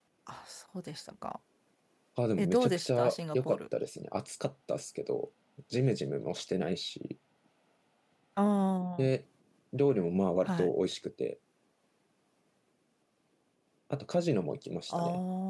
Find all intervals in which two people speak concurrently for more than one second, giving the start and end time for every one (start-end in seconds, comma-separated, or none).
2.4-3.6